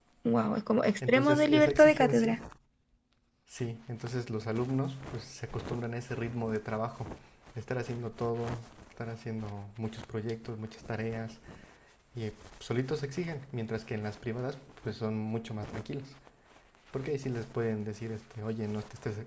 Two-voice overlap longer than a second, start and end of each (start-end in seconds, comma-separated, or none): 1.1-2.4